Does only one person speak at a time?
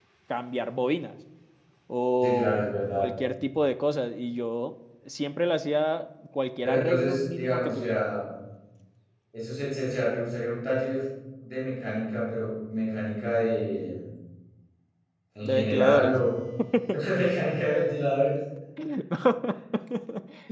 No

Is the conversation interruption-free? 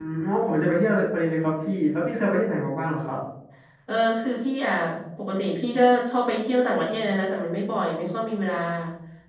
Yes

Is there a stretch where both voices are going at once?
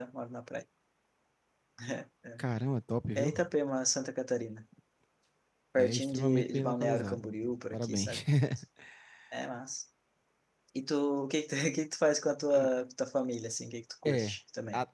Yes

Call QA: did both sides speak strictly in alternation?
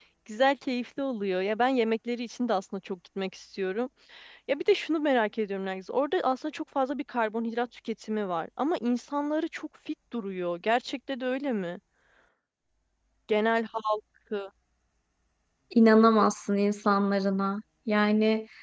Yes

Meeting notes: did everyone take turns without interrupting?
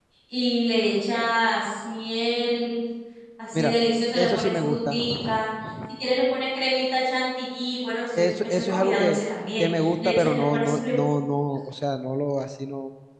No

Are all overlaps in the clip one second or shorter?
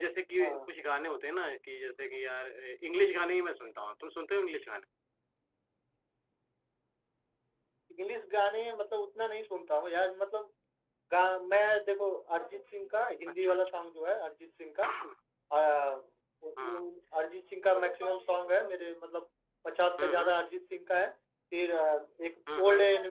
Yes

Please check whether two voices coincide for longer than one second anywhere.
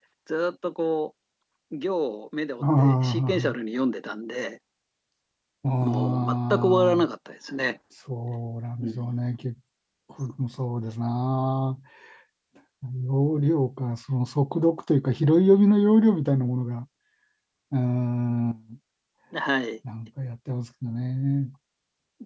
Yes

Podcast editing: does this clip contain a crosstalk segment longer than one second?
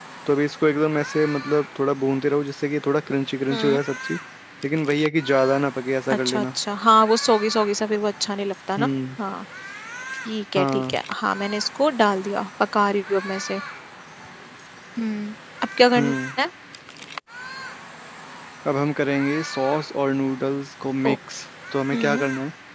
No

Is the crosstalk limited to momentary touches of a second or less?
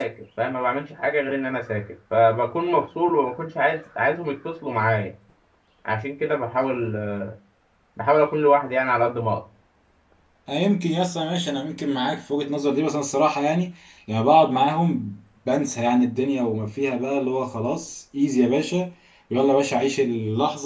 Yes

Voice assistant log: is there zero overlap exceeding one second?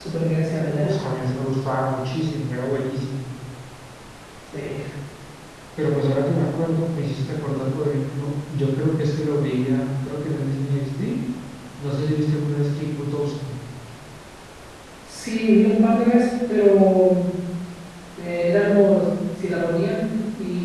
Yes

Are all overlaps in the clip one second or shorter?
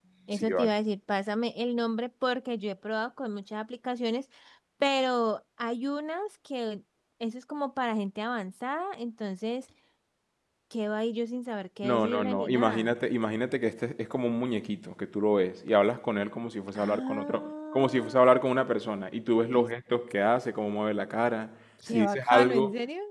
No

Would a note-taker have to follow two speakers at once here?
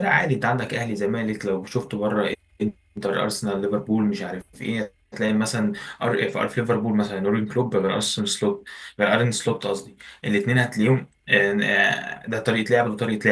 No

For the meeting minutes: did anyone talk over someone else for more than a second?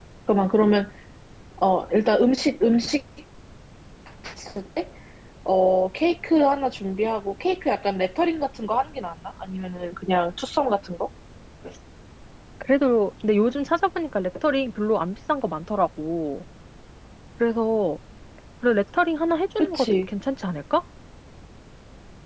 No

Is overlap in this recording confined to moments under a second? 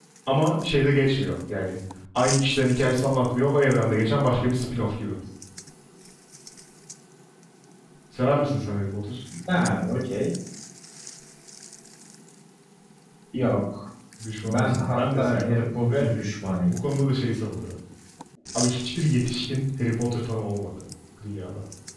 No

